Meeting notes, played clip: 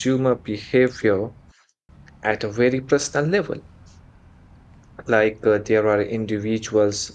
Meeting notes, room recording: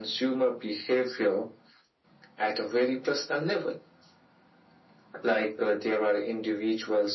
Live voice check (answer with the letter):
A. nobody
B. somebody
A